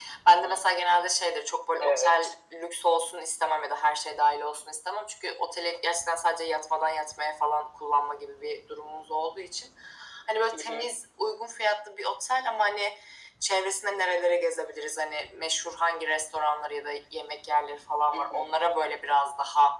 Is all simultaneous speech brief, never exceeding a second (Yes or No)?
Yes